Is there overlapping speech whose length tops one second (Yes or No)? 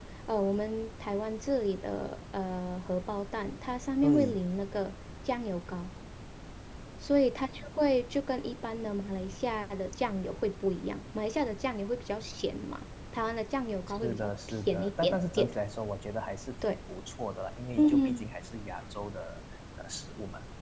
Yes